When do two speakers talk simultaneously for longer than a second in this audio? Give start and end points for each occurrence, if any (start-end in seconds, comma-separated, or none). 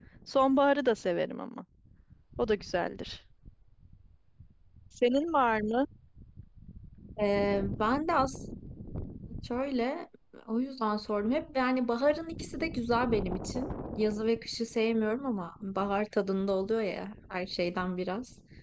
none